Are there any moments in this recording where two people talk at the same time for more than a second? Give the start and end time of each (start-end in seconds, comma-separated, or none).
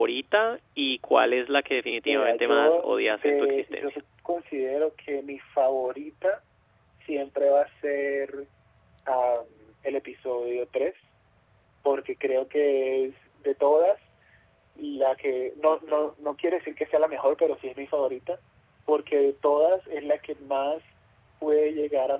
2.1-4.0